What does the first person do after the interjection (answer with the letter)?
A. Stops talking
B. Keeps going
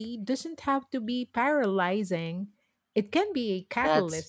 A